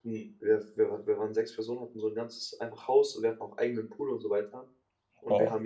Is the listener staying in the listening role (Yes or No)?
Yes